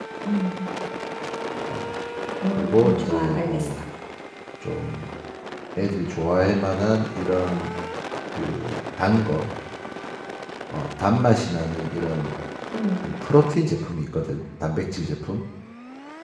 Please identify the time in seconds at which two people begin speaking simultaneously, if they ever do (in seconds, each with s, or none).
2.5 s